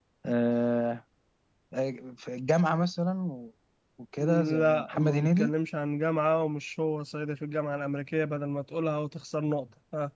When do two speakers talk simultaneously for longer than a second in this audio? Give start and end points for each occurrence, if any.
4.2-5.5

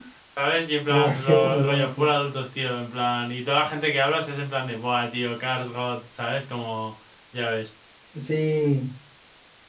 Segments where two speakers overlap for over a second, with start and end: 0.9-2.1

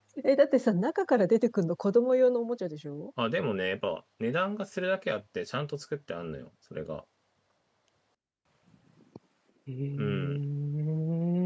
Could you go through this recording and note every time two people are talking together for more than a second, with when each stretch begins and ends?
none

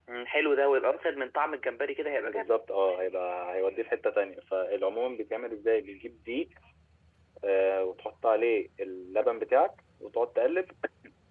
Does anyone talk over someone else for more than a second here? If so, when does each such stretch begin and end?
none

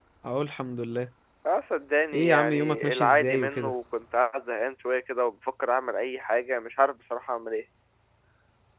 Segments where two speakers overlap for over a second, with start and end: 2.1-3.7

